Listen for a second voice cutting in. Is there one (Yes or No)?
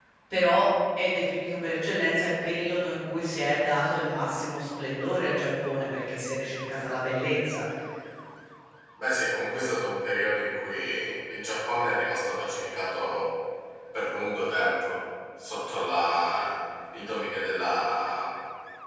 No